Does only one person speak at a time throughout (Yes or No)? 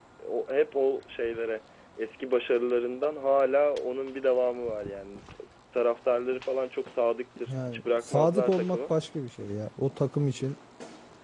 No